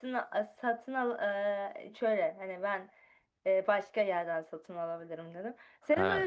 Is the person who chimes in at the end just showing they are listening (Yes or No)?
Yes